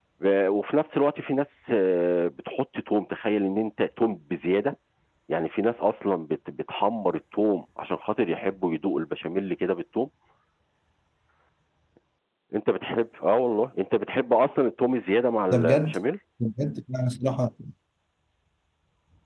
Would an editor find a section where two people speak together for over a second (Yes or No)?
No